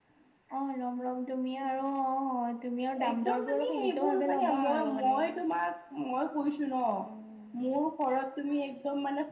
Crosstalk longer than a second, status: present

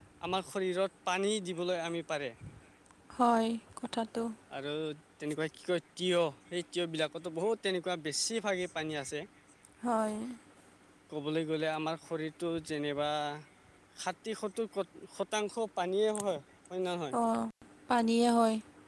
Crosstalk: none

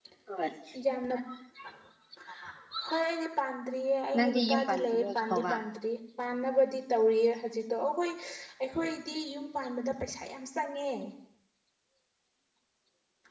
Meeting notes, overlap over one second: present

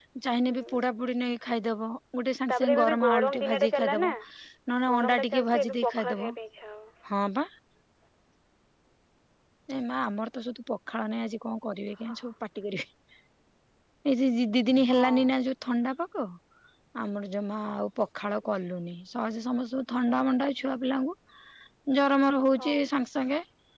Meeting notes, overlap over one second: present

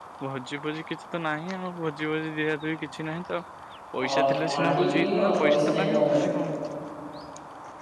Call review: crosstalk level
present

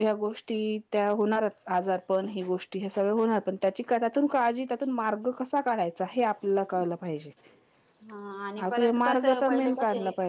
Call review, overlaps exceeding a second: present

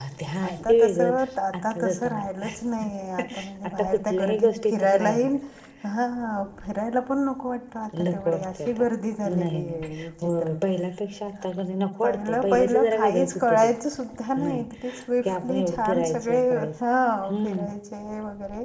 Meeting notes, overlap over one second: present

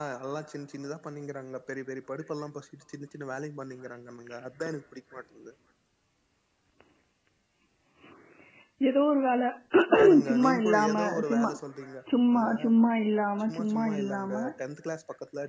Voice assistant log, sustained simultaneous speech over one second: present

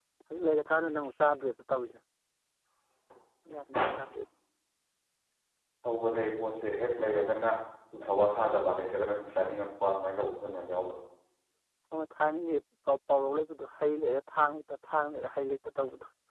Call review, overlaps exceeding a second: none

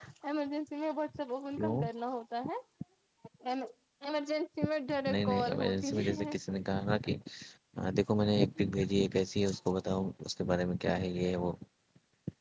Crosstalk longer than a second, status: present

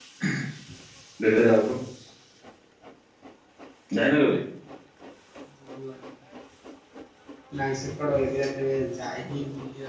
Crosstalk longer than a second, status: none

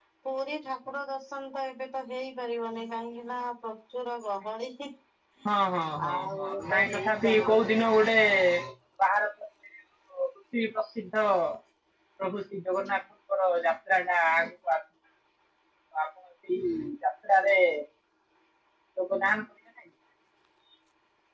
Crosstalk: present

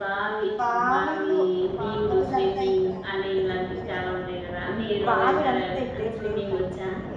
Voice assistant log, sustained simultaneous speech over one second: present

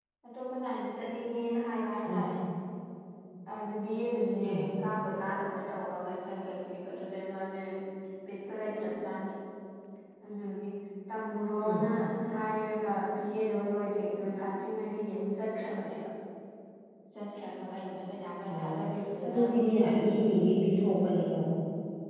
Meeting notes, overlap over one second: none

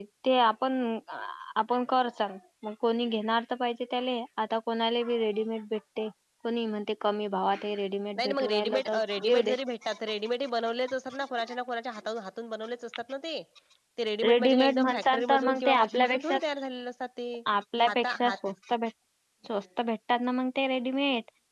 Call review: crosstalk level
present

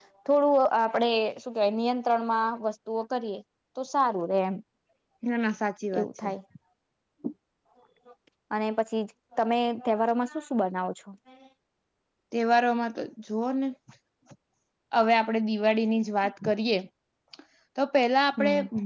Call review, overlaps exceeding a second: none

